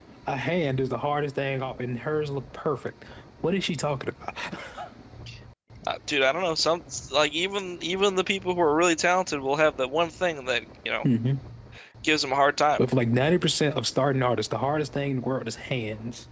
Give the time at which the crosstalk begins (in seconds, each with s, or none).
none